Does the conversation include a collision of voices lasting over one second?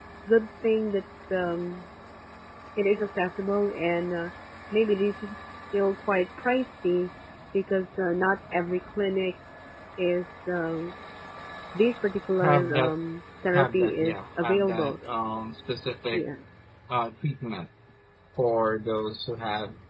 Yes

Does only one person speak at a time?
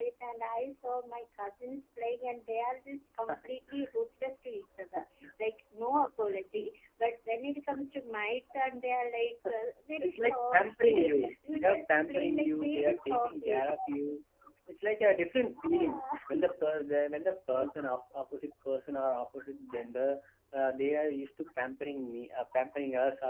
No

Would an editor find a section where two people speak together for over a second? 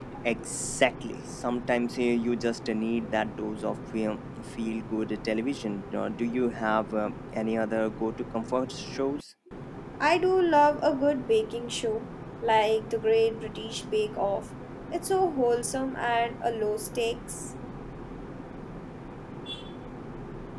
No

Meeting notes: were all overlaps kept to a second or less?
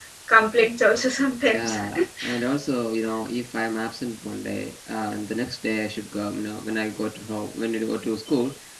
Yes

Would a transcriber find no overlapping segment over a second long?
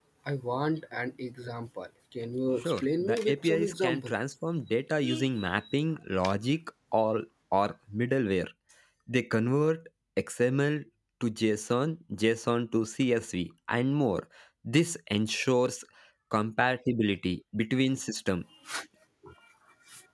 No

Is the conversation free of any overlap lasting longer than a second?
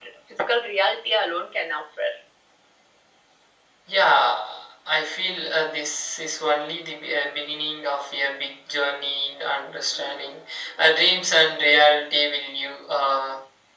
Yes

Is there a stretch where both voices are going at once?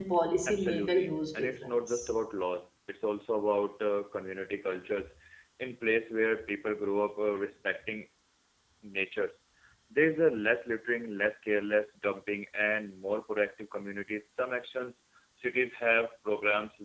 Yes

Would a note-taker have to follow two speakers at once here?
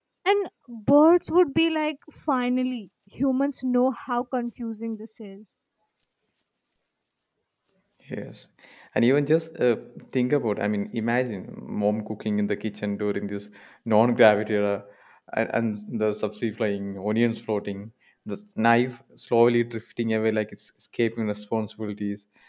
No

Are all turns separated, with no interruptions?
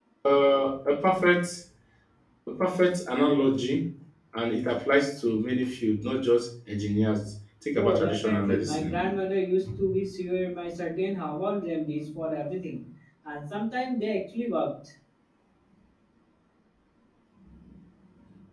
No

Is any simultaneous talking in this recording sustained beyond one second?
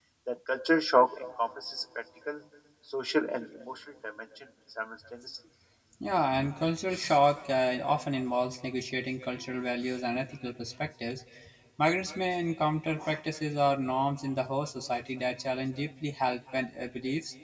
No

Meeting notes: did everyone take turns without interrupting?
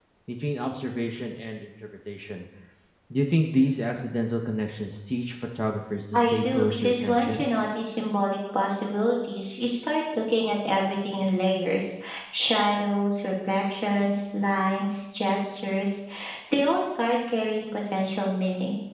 No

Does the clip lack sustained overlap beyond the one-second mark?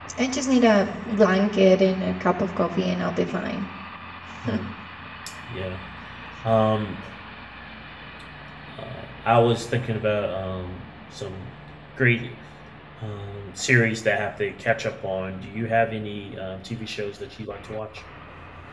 Yes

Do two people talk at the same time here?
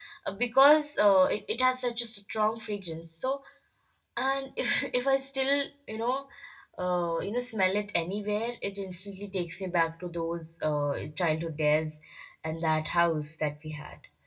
No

